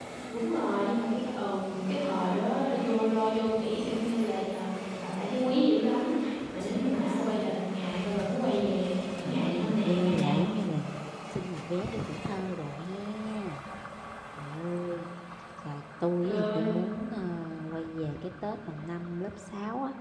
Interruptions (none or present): present